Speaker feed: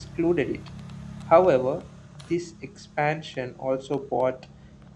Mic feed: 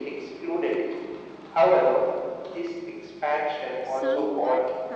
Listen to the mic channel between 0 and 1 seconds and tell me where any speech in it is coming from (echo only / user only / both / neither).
echo only